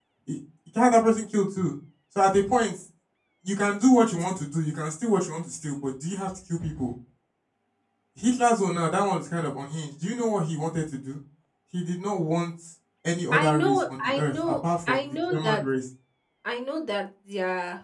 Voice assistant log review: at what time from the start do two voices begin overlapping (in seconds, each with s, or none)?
13.3 s